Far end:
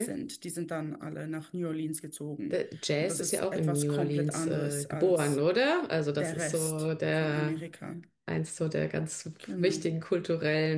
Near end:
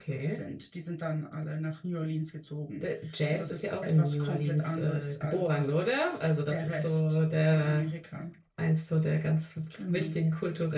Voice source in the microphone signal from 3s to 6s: echo only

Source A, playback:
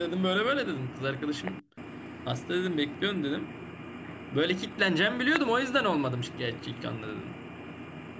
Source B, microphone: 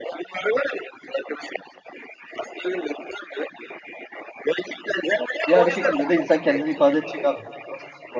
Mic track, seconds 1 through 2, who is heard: echo only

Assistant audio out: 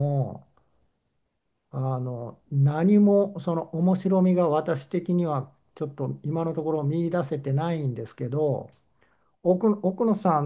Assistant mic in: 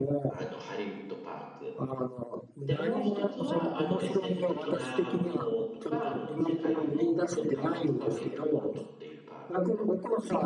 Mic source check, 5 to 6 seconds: both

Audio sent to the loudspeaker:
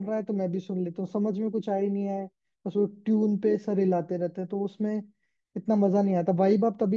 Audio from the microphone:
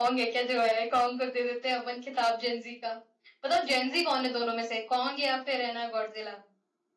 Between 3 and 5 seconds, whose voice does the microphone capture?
user only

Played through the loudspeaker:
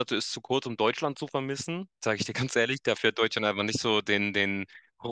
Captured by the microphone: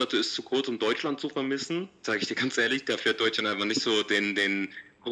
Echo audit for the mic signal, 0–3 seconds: echo only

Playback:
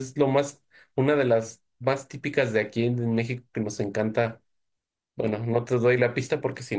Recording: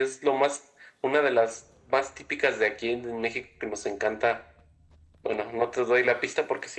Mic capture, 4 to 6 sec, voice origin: echo only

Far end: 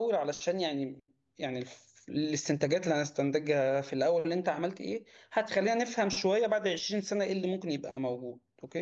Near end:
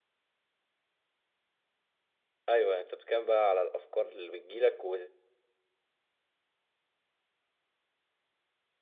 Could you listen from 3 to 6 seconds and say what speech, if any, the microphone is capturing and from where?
user only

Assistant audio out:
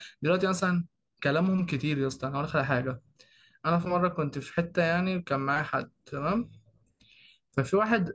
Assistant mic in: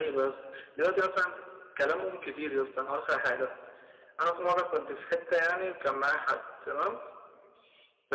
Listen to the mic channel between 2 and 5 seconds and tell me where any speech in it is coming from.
echo only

